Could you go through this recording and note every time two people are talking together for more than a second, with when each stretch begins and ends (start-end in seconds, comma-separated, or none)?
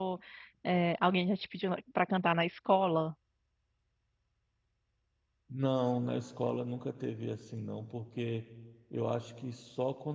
none